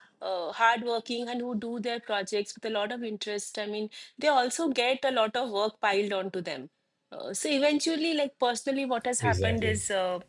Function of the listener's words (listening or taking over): listening